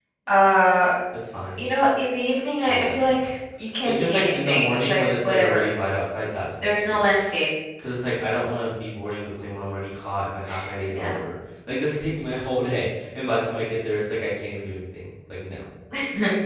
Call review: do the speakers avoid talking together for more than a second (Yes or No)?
No